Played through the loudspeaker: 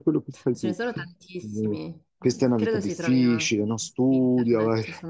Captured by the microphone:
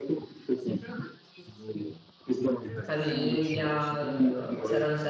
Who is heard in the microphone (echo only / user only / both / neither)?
both